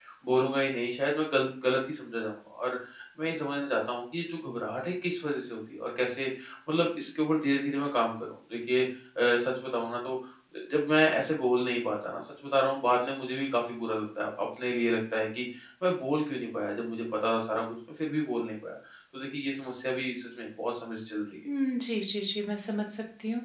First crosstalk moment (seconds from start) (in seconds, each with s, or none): none